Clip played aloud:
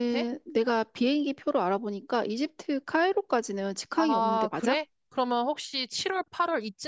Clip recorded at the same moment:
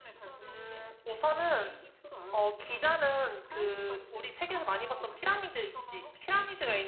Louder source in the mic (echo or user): user